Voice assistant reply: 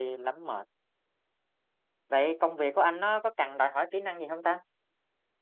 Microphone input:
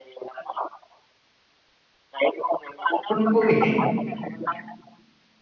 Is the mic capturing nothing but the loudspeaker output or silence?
No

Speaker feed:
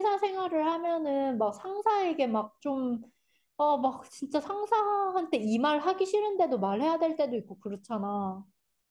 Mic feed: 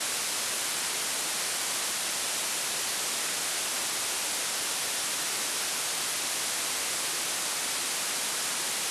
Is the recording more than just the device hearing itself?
No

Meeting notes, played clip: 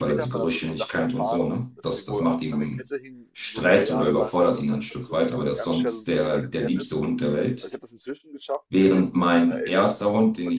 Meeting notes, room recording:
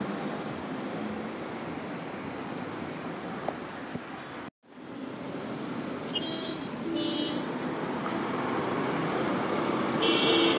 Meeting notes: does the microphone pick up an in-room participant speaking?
No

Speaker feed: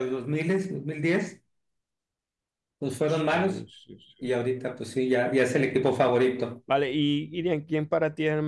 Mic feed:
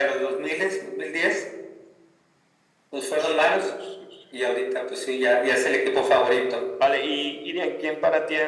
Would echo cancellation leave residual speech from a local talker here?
No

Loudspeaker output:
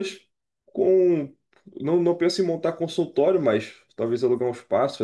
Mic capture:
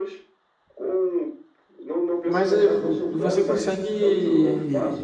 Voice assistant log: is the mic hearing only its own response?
No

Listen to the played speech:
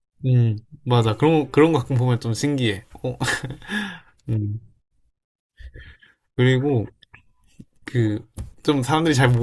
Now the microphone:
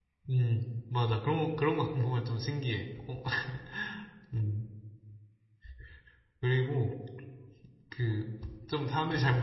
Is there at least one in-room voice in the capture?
No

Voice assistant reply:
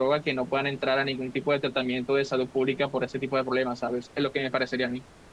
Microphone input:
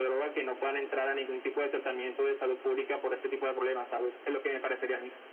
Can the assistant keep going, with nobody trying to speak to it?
Yes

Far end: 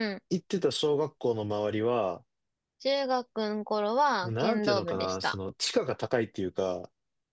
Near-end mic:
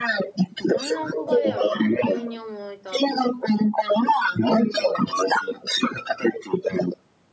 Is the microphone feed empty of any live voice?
No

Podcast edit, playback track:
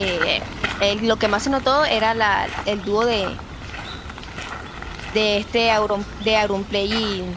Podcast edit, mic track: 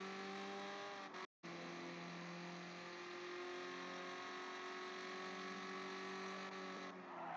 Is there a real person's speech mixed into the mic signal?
No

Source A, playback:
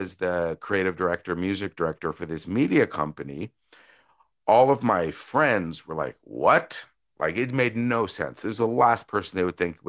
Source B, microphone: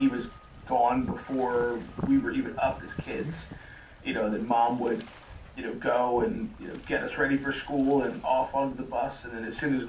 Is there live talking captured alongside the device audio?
Yes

